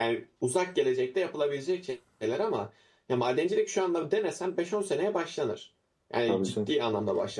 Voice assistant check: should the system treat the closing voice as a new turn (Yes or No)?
No